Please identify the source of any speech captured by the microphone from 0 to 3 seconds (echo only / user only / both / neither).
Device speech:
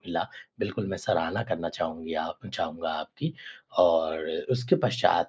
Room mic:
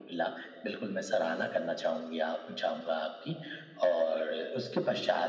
echo only